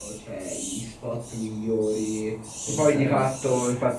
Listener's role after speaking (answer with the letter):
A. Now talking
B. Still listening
A